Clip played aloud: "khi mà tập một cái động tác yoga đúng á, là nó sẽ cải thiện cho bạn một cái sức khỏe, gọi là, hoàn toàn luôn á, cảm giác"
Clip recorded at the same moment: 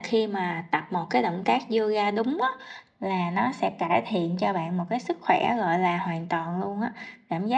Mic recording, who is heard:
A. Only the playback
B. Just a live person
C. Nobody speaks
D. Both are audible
A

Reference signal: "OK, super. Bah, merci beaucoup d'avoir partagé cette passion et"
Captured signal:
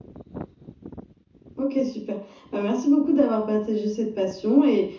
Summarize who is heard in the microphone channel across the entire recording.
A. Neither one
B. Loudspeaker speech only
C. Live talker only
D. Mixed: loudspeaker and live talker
B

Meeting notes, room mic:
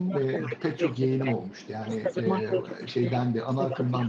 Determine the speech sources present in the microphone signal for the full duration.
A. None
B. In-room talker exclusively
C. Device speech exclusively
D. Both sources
D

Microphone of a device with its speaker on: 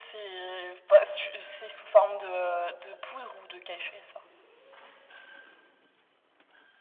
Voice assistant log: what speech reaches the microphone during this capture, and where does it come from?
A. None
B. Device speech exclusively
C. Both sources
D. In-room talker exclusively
B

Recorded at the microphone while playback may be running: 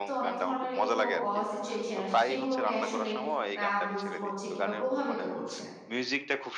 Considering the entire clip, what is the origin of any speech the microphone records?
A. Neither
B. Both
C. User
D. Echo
B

